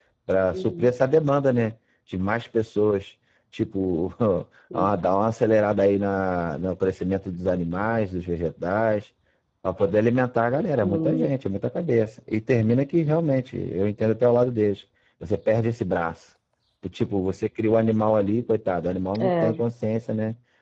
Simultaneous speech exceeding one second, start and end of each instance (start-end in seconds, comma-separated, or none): none